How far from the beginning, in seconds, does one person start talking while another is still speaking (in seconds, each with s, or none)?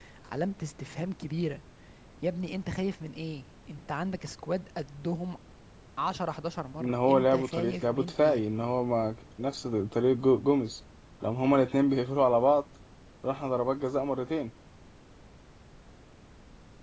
6.8 s